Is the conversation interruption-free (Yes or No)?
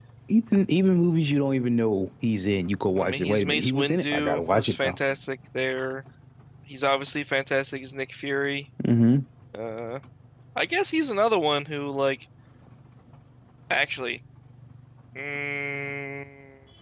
No